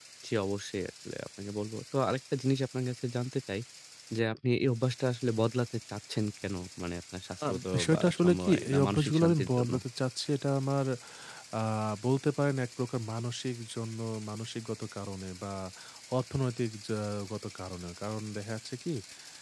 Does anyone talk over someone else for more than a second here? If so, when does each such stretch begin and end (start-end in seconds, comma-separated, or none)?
7.5-9.7